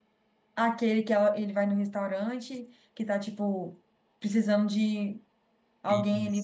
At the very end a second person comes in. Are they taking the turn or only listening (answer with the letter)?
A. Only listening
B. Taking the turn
B